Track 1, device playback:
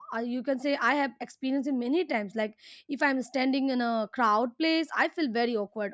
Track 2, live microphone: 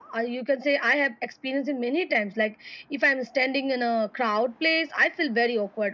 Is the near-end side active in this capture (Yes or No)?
No